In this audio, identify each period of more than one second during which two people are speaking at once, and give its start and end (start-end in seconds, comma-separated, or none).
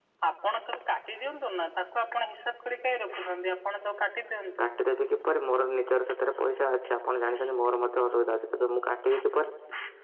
none